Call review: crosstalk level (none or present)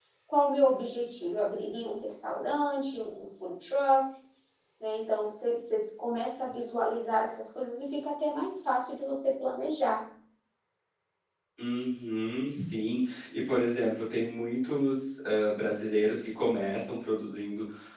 none